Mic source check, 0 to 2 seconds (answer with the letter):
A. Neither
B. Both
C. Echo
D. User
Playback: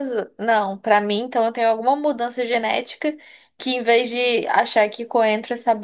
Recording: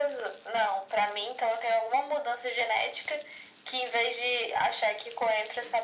C